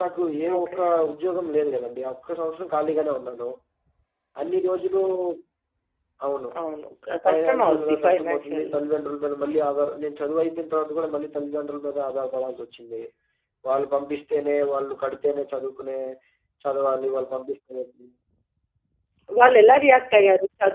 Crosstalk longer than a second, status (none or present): present